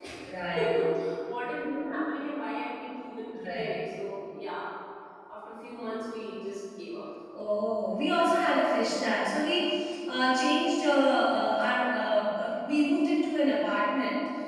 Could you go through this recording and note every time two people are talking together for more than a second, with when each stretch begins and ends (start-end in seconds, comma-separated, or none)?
none